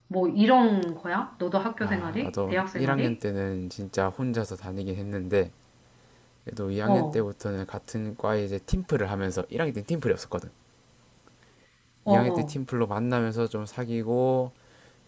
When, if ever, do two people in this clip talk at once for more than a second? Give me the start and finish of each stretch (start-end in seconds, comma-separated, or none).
1.8-3.2